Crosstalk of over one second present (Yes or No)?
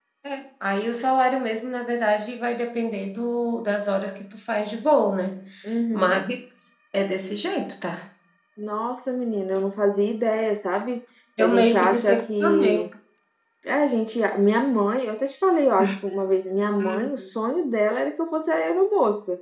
Yes